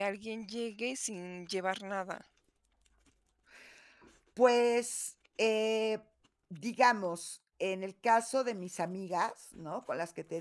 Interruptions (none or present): none